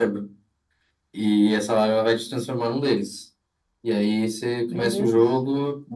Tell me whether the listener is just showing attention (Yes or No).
Yes